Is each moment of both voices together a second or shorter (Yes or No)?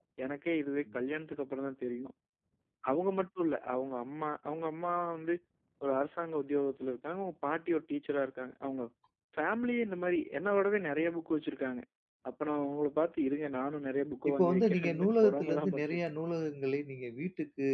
No